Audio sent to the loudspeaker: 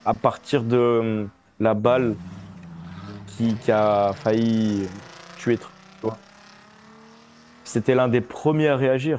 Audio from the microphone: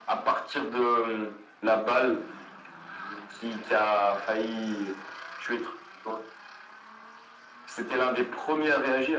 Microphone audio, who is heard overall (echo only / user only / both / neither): echo only